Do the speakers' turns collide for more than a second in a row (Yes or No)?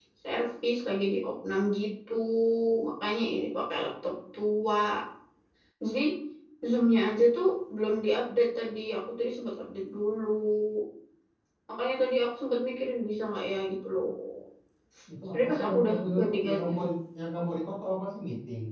Yes